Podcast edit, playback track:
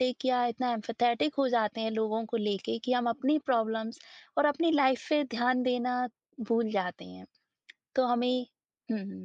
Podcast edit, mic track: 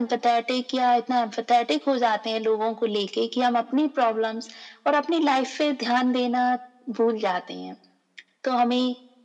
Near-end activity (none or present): none